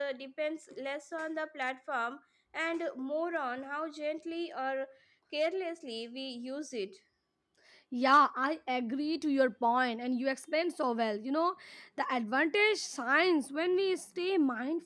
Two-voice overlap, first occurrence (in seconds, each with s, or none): none